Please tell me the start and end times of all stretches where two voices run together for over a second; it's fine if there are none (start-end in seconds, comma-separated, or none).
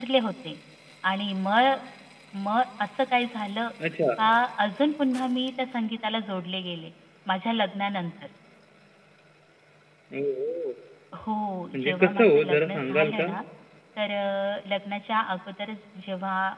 11.7-13.3